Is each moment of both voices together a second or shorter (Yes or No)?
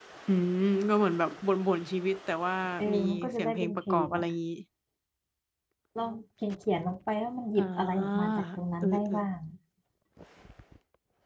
No